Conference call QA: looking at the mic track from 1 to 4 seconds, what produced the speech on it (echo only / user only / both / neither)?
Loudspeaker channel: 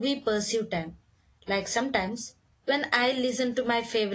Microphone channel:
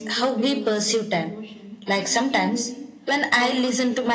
both